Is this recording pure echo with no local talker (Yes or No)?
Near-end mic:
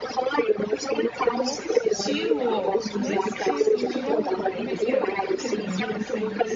No